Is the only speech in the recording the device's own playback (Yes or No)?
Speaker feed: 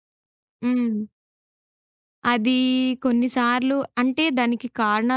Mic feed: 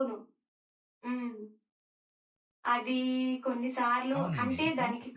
No